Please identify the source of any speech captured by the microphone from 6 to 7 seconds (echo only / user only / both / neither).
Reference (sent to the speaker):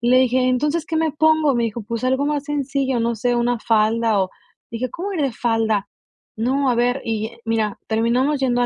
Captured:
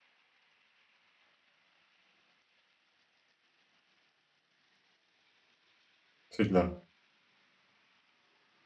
user only